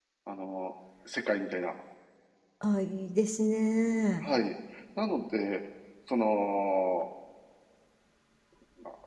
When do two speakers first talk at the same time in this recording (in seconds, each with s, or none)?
none